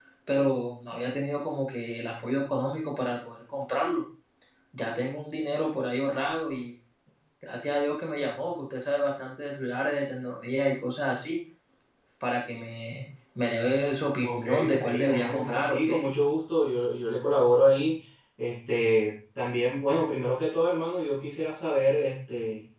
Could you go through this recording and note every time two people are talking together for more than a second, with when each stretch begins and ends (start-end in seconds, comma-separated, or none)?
14.2-16.1